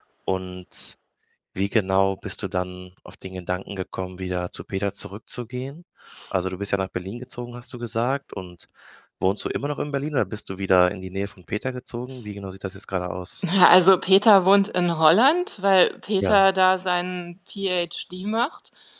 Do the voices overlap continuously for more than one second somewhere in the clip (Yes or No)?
No